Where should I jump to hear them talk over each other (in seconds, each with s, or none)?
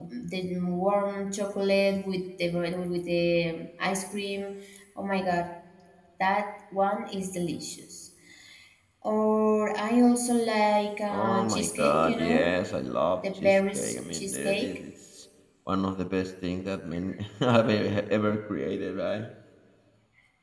11.1 s